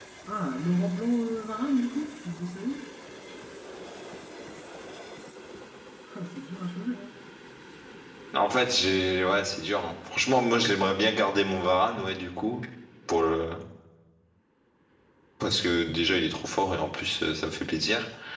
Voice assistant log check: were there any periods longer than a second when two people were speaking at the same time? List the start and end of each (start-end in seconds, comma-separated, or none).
none